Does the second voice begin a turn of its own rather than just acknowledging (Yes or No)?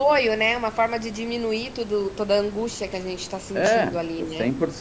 Yes